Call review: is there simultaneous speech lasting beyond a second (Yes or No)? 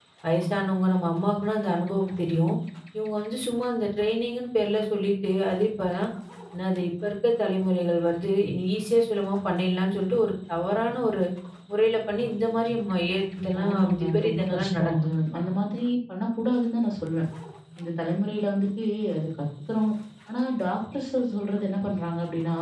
Yes